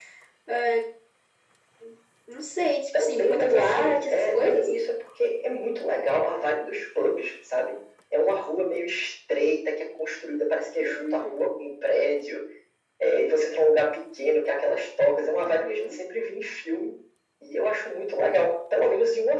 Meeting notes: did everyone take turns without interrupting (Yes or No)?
No